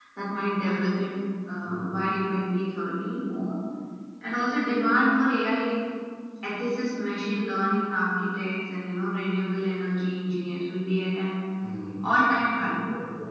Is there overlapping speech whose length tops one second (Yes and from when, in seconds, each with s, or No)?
No